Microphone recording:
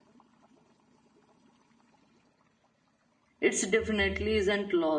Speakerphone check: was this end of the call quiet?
No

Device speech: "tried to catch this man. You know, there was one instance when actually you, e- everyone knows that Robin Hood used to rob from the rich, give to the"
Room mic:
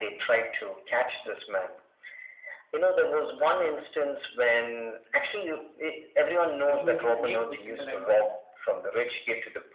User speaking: Yes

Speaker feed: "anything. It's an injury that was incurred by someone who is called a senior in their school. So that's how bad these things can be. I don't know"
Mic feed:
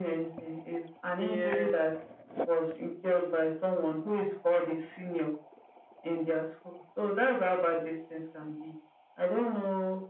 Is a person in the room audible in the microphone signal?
Yes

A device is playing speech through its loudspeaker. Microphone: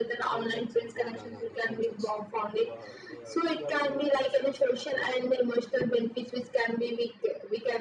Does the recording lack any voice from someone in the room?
No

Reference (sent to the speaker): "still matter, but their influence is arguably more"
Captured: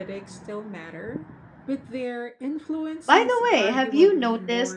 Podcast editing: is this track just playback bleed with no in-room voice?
No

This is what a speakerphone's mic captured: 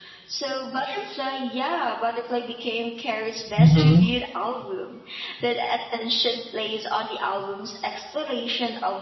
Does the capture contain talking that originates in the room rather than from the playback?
Yes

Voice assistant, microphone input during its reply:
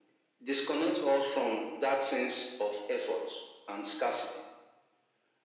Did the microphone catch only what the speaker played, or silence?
Yes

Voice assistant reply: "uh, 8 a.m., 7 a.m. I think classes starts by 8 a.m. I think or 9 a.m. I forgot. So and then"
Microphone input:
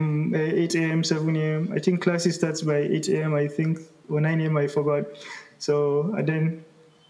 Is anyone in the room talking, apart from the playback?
No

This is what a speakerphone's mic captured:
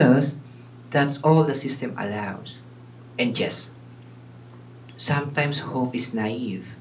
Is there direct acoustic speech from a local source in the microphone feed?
No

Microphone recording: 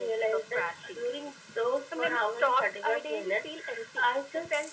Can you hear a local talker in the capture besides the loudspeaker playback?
No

